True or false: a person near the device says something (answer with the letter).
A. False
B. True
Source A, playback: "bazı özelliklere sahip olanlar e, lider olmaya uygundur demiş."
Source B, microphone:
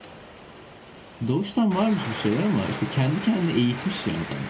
B